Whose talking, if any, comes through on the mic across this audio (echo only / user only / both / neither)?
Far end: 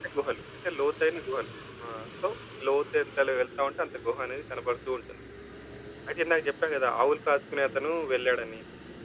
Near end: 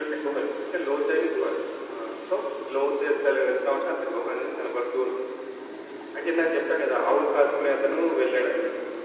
echo only